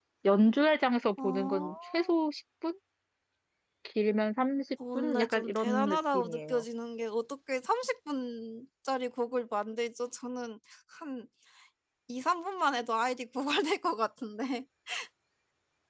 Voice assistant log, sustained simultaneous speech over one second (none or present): present